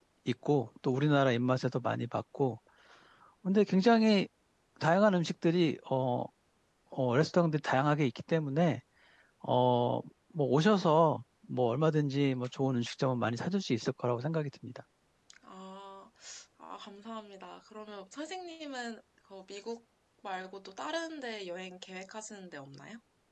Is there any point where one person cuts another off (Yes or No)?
No